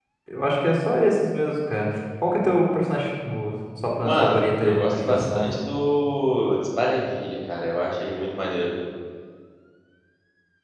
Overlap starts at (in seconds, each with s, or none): 4.0 s